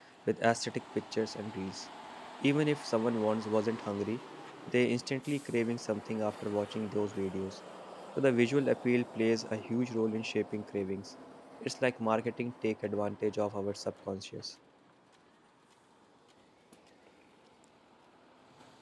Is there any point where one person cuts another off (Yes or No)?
No